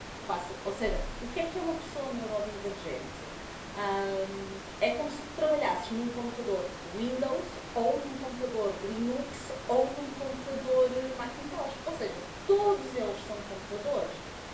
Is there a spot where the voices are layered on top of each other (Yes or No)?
No